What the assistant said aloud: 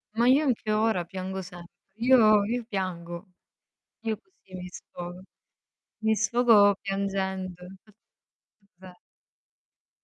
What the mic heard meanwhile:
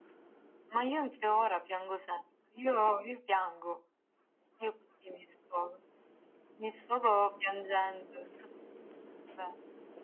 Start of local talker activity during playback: none

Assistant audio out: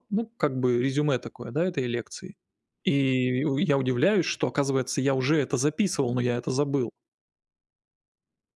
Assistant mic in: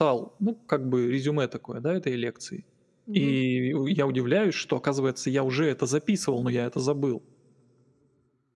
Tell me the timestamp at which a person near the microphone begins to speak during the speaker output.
3.1 s

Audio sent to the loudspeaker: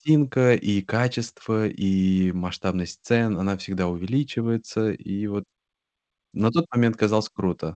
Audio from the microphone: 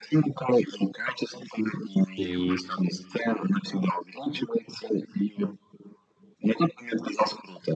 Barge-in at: 2.2 s

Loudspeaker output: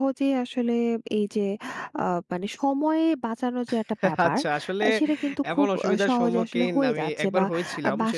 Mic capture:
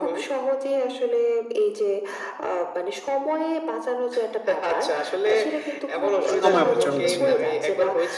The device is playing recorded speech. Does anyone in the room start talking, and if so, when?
6.3 s

